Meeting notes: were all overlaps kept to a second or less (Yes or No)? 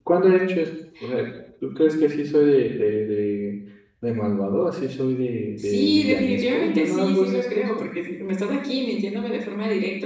No